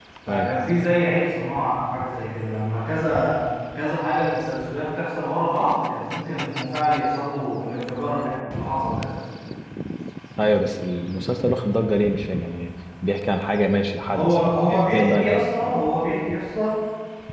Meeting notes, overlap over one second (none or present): present